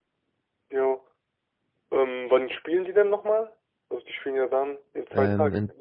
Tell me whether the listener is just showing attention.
No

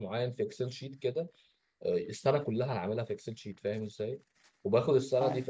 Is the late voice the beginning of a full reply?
No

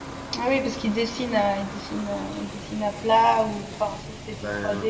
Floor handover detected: Yes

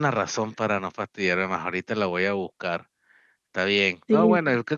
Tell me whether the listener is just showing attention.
Yes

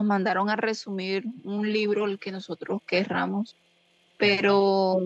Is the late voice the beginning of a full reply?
No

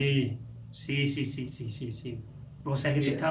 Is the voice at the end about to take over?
No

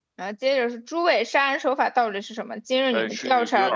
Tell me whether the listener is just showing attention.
No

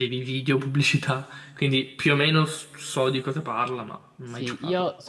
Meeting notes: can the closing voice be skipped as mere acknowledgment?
No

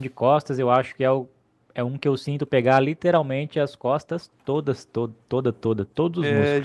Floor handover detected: Yes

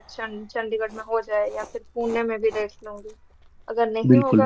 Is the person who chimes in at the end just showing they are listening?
Yes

